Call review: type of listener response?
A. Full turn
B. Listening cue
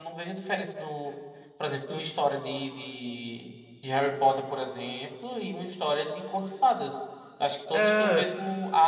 B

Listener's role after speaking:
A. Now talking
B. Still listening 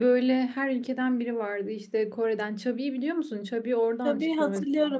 A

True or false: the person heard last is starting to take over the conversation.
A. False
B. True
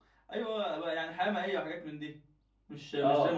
B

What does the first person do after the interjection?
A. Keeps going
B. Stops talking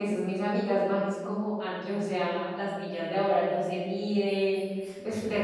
A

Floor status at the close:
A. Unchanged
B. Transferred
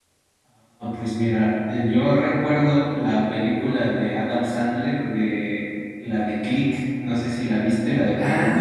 B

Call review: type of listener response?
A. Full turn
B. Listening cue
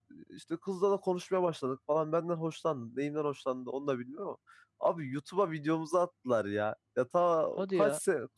B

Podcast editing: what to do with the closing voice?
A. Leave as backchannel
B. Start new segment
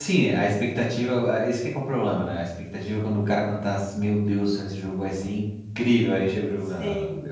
B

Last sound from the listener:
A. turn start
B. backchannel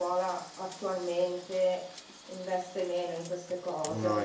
B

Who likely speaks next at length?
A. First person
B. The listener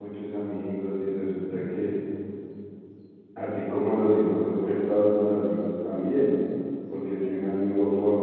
A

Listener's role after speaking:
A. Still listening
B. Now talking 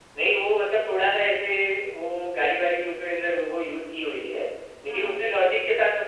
A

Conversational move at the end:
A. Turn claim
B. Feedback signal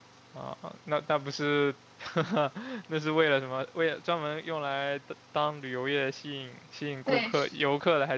B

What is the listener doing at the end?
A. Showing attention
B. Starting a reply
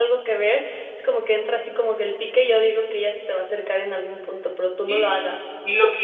B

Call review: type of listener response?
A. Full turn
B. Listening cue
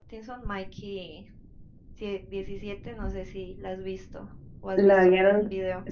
A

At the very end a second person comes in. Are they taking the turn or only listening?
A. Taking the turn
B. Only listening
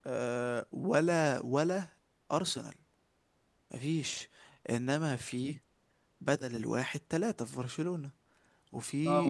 A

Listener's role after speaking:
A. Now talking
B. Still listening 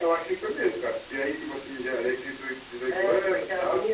A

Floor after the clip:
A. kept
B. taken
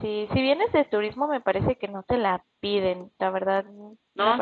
B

